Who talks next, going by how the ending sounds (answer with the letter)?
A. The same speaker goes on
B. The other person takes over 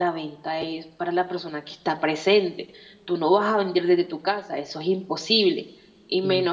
A